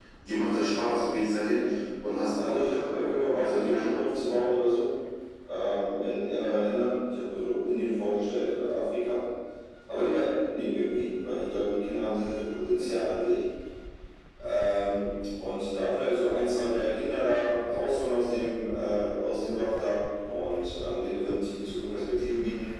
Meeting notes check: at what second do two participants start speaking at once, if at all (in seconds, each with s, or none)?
2.4 s